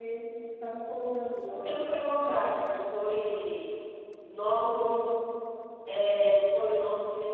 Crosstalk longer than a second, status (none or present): none